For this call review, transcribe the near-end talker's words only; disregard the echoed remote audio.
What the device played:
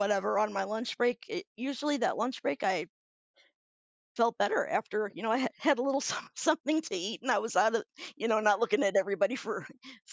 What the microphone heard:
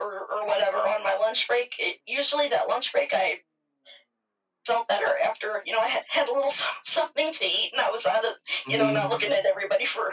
mhm.

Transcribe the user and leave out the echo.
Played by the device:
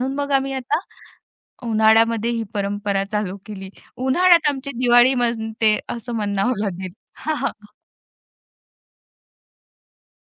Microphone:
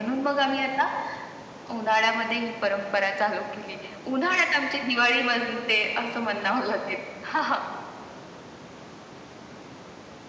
none

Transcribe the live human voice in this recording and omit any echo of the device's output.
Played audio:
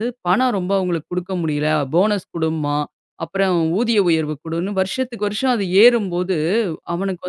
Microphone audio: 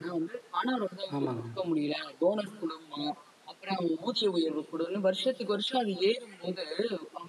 ஆமாங்க.

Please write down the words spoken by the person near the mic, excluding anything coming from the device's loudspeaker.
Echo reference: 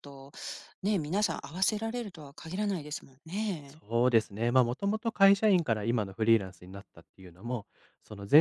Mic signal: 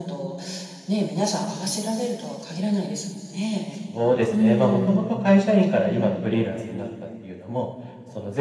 うーん、

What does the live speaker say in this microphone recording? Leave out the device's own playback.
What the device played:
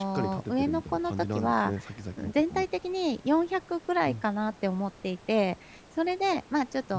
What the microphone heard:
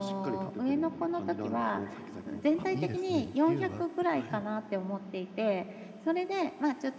あ、いいですね。自由があって、はい。

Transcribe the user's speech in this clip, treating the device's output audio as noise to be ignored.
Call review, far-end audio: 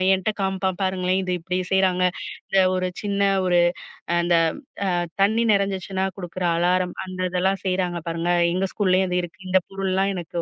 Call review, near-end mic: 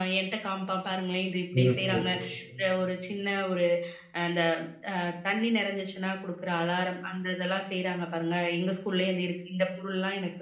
சிறப்பு.

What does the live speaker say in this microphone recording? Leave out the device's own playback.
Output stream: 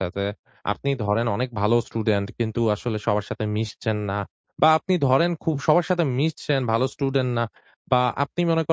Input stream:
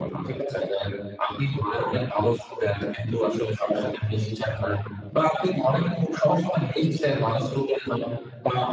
none

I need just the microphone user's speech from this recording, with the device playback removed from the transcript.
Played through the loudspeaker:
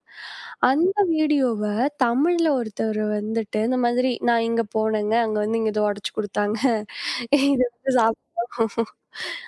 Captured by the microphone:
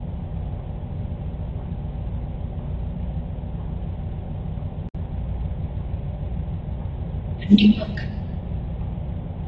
கண்டிப்பா.

